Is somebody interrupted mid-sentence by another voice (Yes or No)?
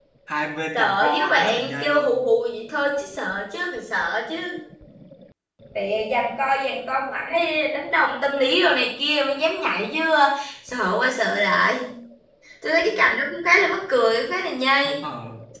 Yes